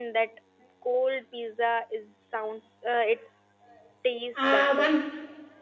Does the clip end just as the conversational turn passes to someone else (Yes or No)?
Yes